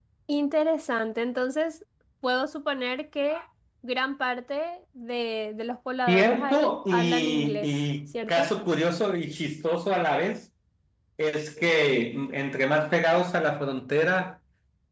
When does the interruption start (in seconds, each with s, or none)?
6.1 s